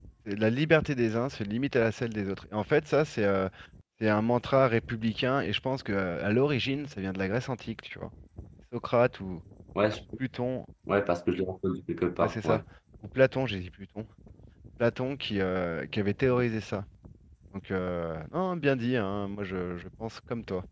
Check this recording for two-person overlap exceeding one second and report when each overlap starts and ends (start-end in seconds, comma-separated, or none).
none